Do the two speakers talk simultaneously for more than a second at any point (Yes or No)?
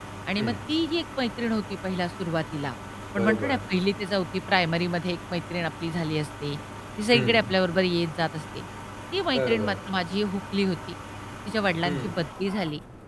No